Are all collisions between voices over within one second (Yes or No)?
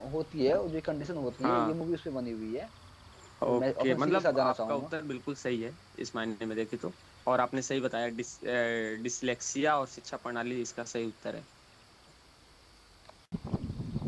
No